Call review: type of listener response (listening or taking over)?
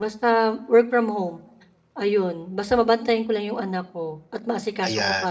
taking over